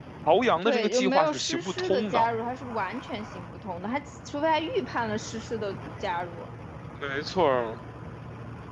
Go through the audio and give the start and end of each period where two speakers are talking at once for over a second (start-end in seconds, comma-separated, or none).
0.6-2.3